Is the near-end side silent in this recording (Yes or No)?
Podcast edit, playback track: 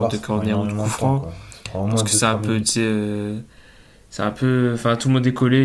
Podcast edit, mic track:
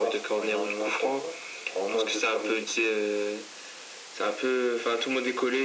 Yes